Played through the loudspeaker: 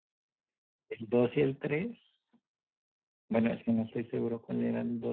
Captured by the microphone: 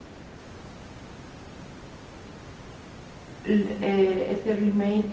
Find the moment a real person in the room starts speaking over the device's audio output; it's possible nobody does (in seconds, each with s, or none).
3.4 s